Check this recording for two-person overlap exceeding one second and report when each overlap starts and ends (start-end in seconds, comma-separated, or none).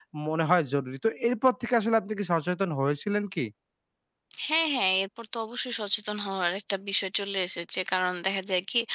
none